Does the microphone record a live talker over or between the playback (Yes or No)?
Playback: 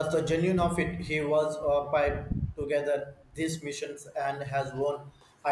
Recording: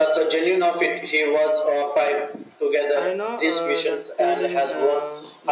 Yes